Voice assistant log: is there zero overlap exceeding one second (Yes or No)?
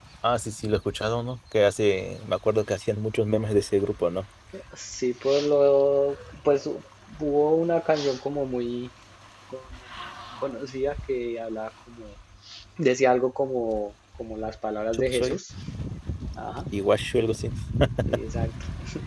Yes